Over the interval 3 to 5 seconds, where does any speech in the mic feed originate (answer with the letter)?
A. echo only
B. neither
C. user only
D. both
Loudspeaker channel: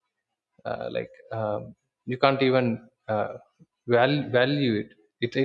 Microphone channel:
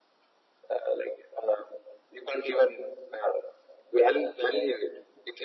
A